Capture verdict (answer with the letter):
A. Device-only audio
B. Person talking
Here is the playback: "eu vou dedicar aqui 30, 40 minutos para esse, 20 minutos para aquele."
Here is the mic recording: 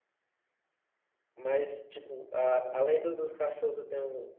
B